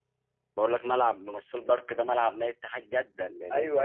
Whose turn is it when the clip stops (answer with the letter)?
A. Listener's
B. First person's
A